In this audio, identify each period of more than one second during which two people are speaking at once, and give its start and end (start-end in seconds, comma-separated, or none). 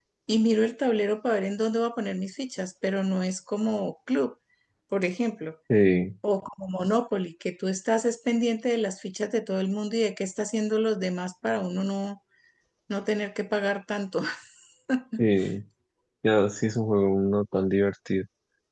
none